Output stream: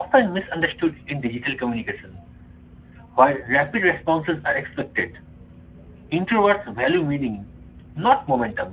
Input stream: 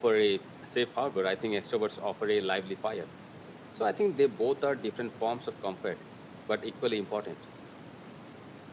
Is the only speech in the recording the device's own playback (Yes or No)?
No